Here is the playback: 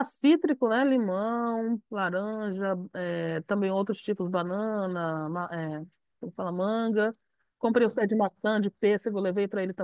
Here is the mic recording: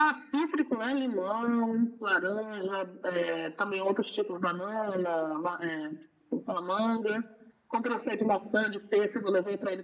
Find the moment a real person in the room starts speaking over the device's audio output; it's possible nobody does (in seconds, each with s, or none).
none